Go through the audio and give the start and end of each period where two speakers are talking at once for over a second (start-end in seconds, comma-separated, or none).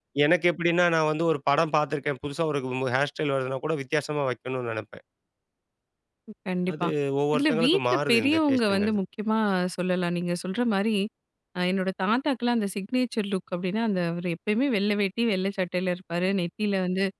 7.3-9.0